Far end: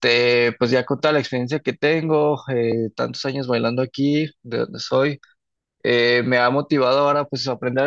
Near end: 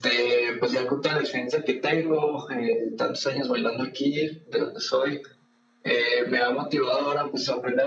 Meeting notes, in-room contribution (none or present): none